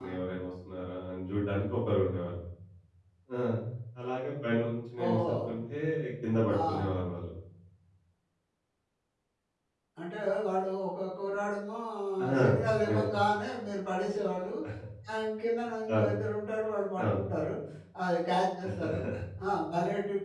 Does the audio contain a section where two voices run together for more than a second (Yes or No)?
No